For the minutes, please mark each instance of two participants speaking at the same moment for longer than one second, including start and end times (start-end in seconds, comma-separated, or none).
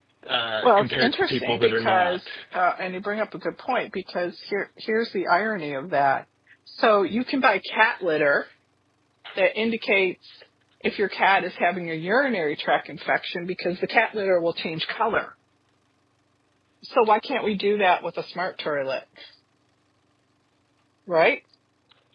0.6-2.4